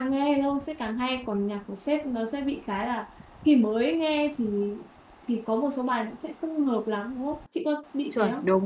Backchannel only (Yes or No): No